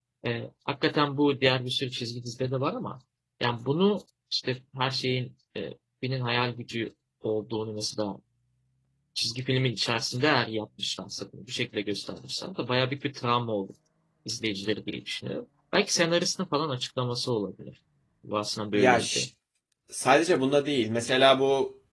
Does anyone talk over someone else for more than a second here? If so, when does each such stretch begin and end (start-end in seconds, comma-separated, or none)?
none